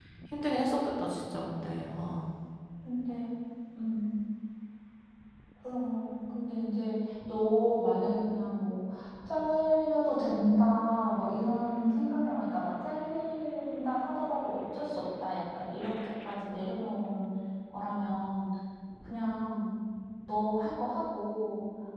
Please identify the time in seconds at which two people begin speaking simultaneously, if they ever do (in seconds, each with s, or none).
none